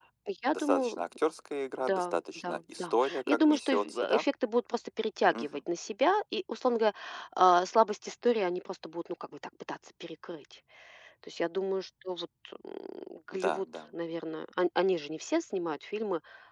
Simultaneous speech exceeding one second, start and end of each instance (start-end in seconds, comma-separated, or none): 1.8-4.2